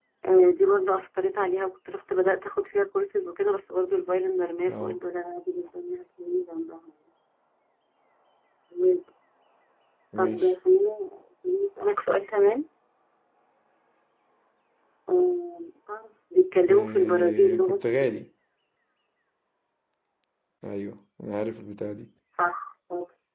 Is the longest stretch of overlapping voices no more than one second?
No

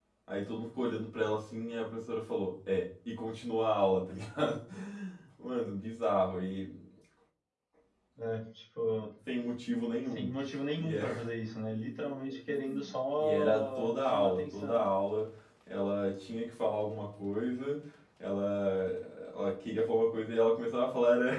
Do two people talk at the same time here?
Yes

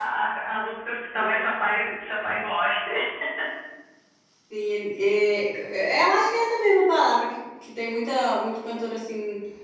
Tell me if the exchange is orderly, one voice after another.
Yes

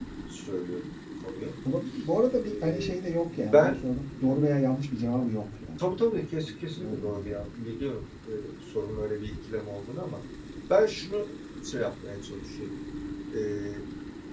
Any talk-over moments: Yes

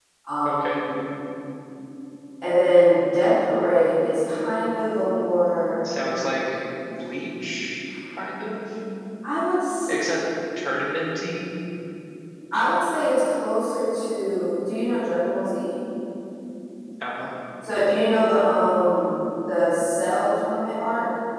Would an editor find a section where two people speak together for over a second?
No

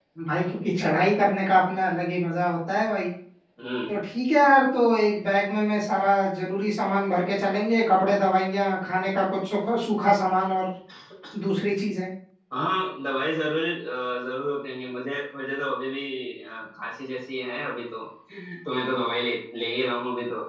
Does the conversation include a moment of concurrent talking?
No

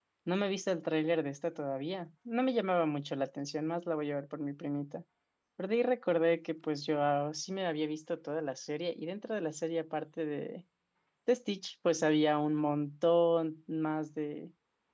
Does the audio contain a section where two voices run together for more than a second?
No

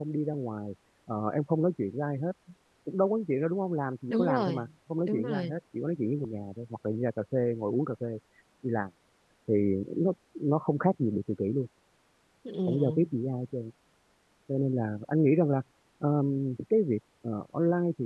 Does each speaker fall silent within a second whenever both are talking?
Yes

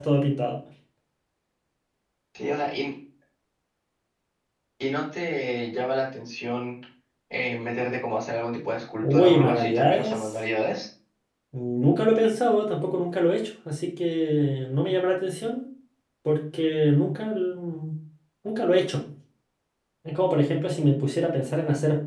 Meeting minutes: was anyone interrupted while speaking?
Yes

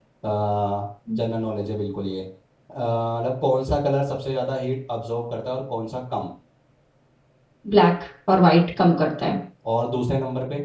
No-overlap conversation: Yes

